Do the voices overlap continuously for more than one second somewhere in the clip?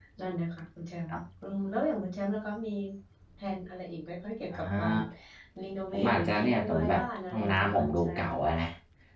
Yes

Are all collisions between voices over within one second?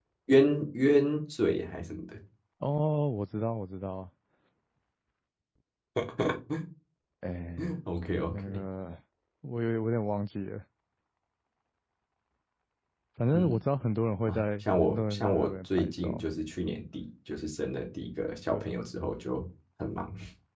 No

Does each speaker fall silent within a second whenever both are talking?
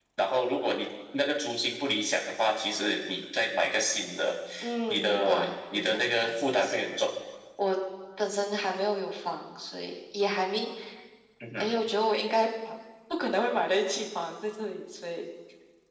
No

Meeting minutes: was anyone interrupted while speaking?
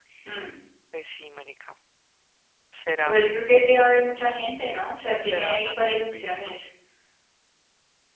Yes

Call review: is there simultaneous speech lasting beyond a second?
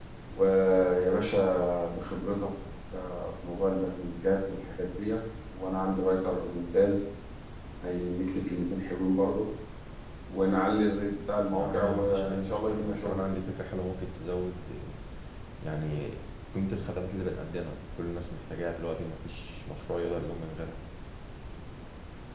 Yes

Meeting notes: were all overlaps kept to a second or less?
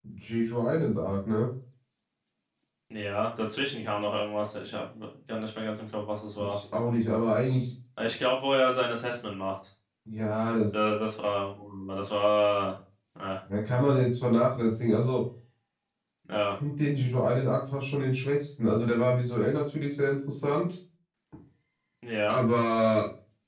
Yes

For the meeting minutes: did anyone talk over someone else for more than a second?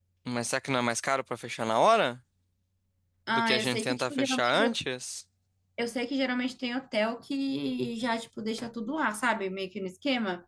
Yes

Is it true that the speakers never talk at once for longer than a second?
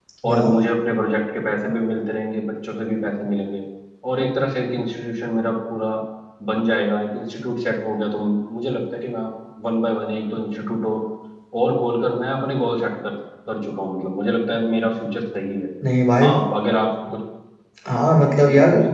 Yes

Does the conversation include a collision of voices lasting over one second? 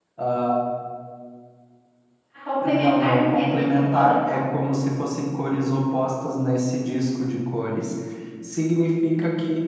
Yes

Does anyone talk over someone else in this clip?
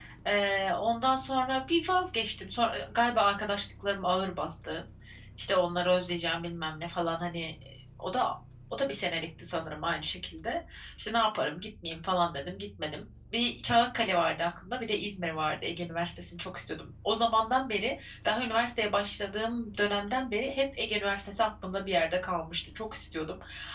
No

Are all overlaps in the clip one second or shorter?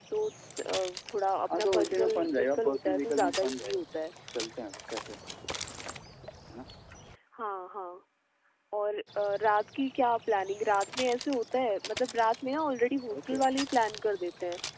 No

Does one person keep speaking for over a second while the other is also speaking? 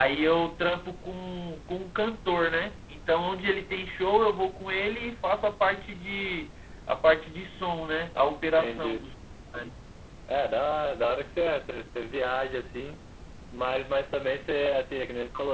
No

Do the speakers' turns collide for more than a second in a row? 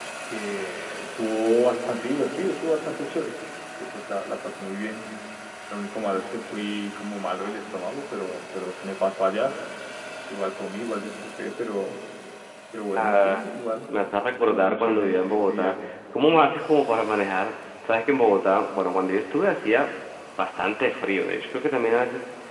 Yes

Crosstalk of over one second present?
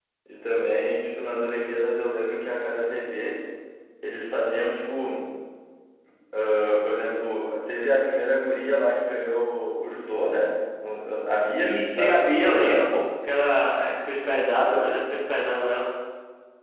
Yes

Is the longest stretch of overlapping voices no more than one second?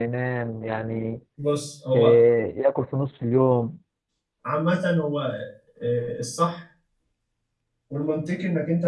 Yes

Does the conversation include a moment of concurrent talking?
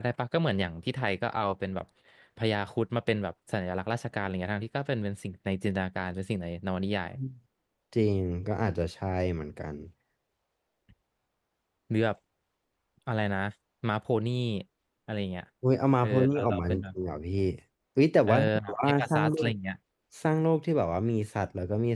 Yes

